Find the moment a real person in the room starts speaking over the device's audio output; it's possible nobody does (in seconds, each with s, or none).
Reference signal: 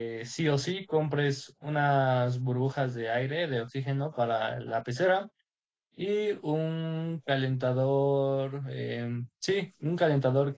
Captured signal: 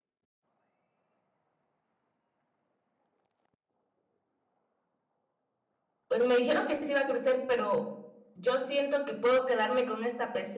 6.1 s